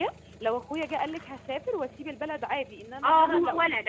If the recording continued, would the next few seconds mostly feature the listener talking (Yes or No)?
Yes